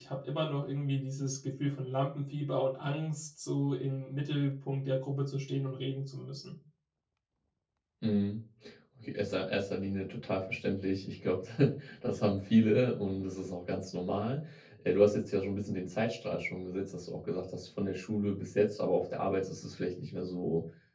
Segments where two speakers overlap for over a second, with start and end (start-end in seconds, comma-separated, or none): none